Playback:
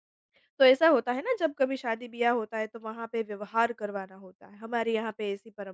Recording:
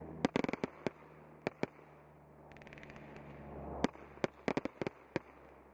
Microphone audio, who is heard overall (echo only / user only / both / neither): neither